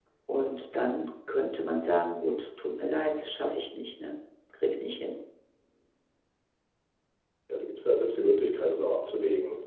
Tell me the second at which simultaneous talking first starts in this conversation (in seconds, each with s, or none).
none